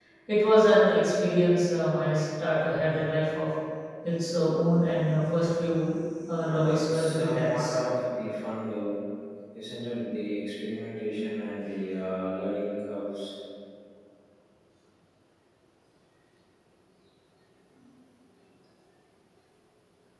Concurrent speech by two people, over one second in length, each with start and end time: 6.4-7.8

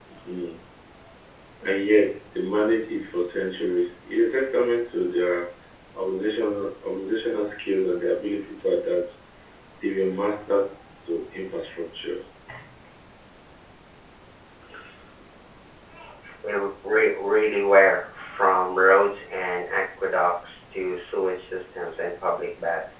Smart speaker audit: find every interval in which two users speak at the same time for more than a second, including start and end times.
none

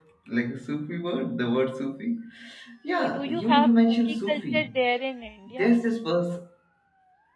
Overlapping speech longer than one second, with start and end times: 3.0-4.7

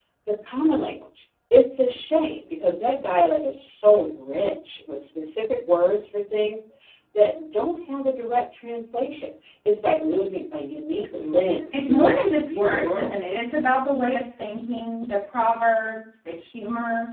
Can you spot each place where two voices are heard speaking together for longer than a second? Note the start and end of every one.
11.7-13.2

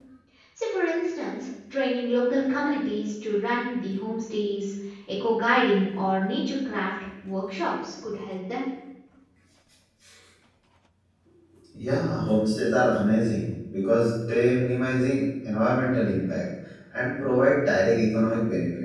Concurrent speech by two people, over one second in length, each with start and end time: none

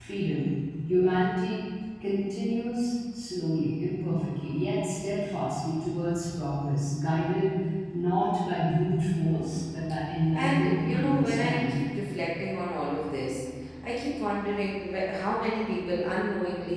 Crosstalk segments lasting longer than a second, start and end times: 10.4-11.8

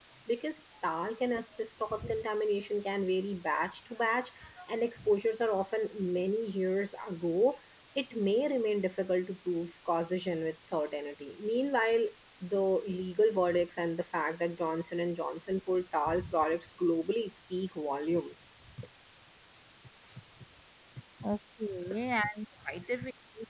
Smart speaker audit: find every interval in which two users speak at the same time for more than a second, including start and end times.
none

